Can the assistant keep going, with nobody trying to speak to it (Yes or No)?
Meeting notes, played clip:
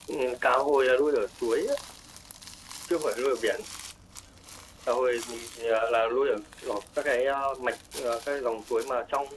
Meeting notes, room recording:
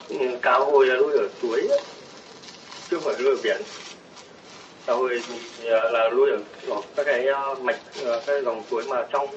Yes